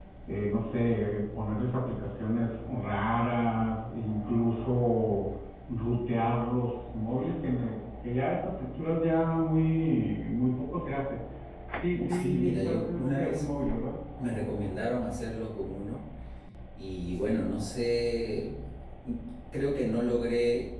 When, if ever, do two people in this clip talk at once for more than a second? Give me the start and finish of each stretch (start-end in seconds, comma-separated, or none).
11.9-13.5